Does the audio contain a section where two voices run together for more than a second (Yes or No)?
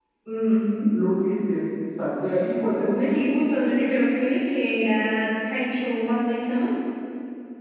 No